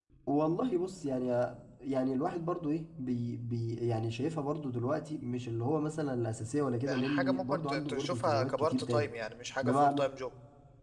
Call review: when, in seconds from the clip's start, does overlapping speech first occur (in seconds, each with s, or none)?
6.9 s